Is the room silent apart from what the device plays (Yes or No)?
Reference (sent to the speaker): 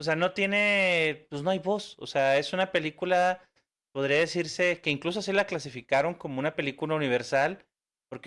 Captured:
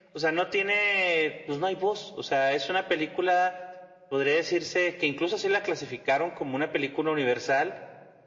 Yes